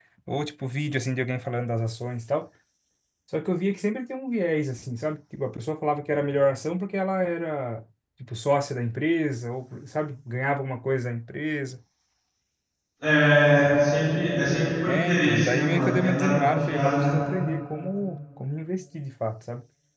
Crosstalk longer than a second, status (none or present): present